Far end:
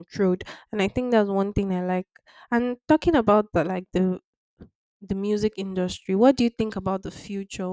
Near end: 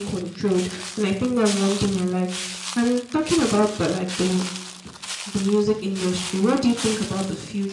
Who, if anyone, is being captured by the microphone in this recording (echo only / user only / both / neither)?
echo only